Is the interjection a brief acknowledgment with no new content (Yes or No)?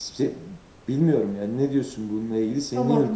No